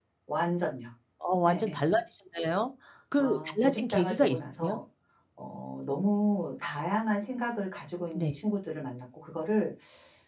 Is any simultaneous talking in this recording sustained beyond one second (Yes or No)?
Yes